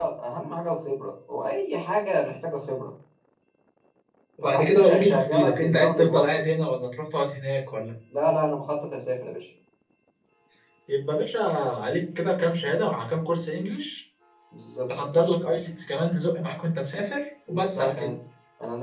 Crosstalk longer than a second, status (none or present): present